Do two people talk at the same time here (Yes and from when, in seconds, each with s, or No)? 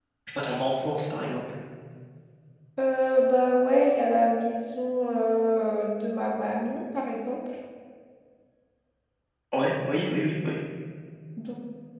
No